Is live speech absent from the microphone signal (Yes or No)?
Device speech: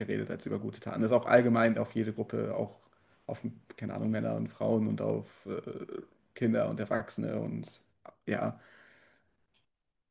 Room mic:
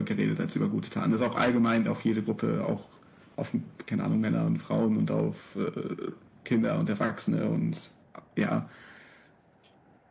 Yes